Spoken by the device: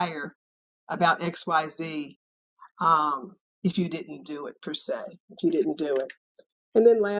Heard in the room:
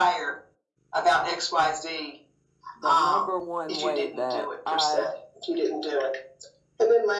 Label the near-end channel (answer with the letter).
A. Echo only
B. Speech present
B